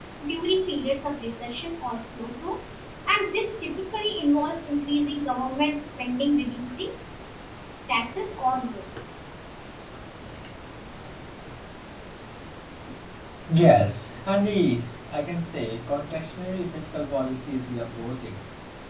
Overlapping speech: No

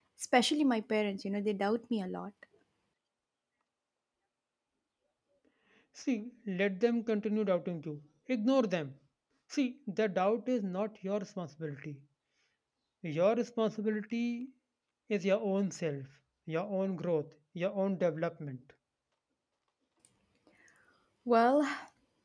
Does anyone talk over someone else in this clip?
No

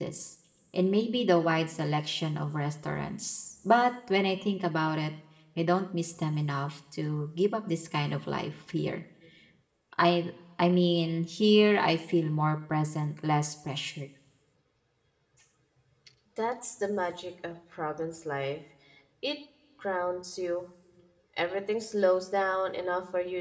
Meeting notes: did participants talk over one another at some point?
No

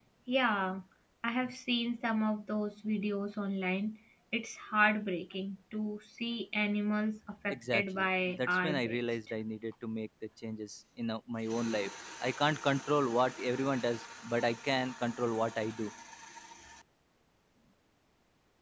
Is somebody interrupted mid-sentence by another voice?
Yes, from 7.5 s

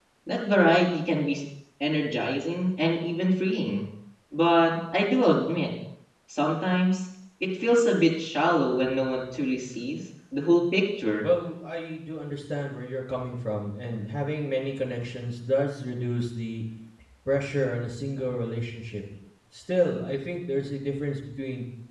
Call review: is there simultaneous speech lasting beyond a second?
No

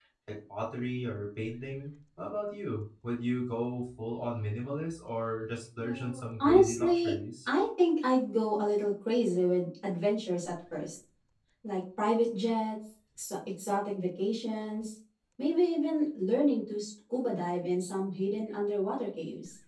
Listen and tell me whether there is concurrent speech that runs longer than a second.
Yes, from 5.8 s

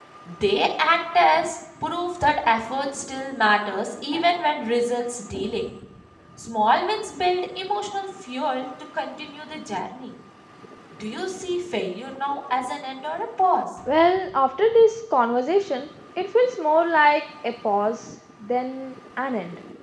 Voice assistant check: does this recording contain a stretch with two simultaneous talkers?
No

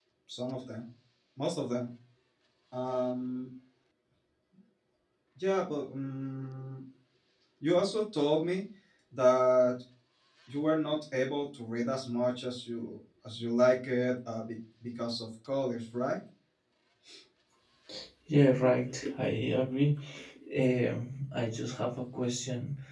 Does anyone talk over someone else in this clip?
No

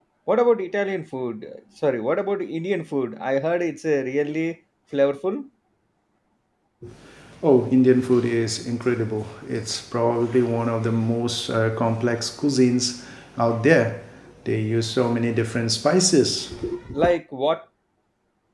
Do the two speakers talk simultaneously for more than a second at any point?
No

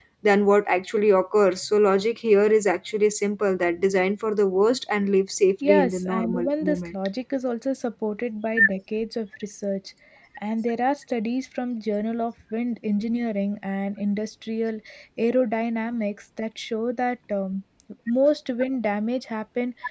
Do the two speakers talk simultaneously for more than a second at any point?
Yes, from 5.6 s

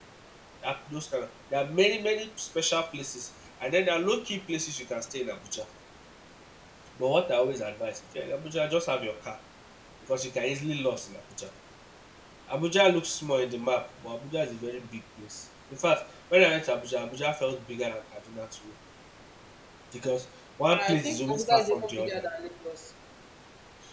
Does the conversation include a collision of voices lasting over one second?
Yes, from 20.7 s

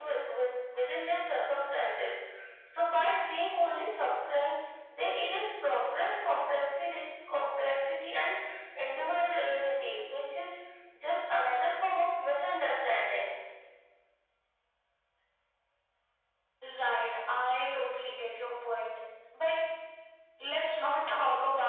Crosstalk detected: No

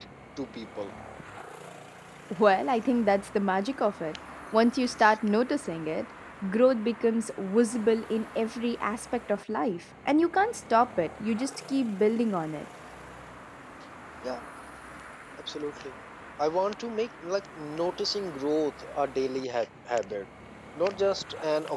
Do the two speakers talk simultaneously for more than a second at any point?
No

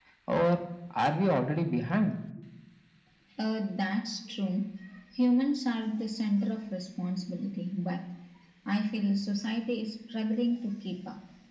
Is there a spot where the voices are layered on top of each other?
No

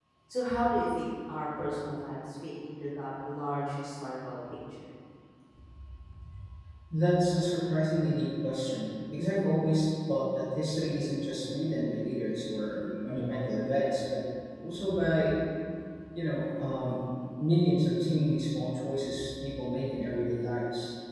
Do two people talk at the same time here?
No

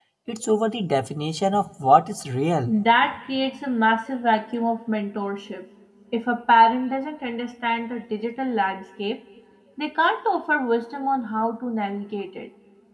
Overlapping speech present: No

